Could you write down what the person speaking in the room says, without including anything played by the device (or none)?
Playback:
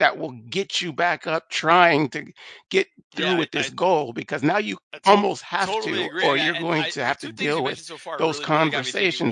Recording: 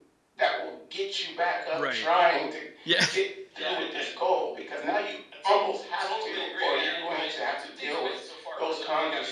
Right. Yeah.